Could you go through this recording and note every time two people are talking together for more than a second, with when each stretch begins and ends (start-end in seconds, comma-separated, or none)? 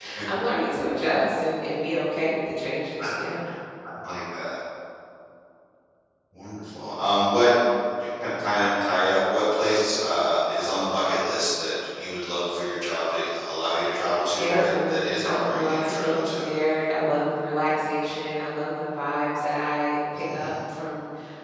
14.4-16.6